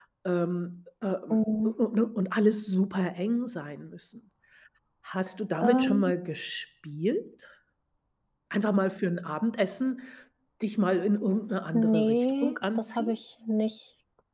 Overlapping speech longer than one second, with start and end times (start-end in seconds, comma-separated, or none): 11.7-13.1